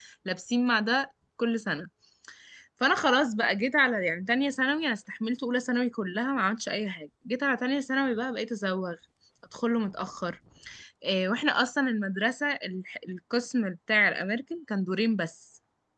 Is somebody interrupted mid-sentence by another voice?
No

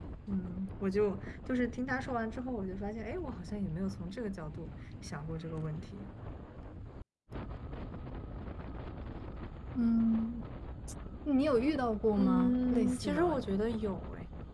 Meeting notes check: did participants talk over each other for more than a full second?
Yes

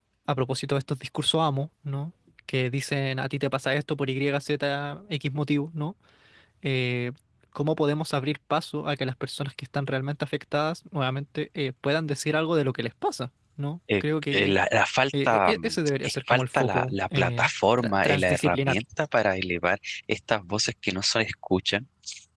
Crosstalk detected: Yes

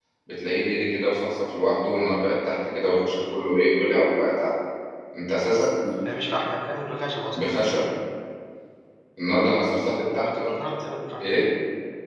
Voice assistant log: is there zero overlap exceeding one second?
Yes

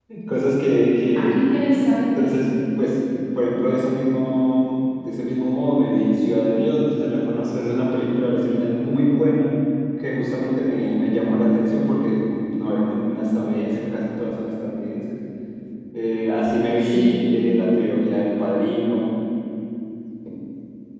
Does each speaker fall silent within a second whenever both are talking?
Yes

